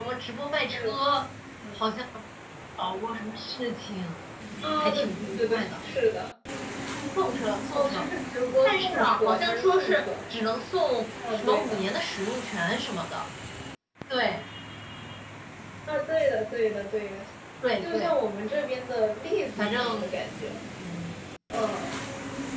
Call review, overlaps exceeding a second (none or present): present